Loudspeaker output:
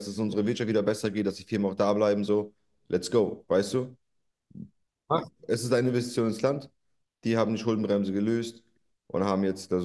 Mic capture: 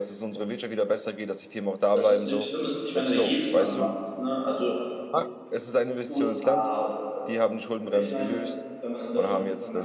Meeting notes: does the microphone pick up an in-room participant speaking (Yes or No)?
Yes